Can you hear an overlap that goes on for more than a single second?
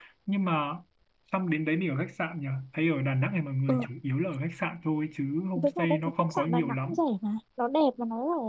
Yes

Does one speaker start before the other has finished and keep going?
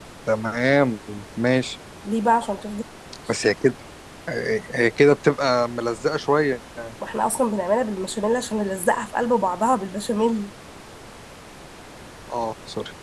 No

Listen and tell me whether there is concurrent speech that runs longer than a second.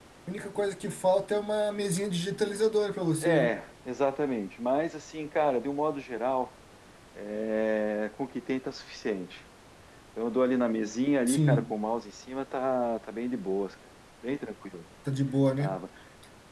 No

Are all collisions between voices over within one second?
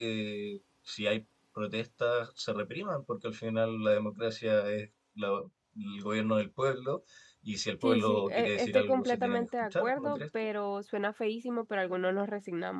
No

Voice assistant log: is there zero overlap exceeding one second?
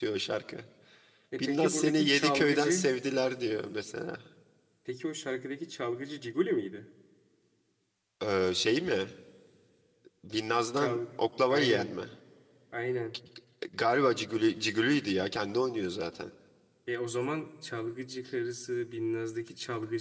No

